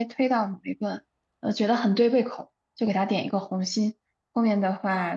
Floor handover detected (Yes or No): No